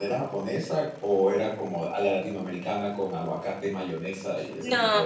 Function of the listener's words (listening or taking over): taking over